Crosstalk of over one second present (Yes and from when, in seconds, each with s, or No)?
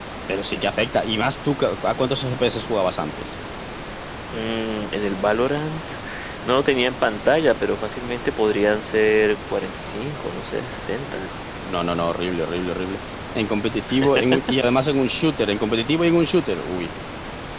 No